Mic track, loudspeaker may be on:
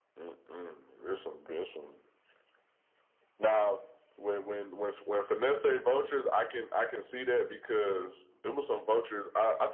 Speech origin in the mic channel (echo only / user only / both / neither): echo only